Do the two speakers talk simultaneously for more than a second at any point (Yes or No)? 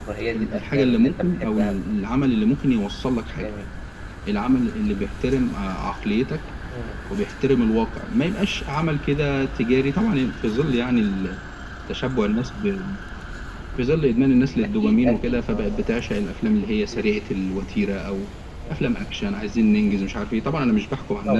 Yes